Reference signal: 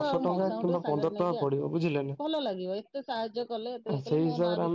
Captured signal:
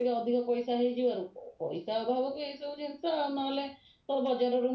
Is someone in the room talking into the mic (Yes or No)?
Yes